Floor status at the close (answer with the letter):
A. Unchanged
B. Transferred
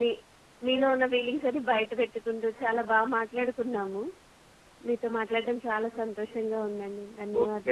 B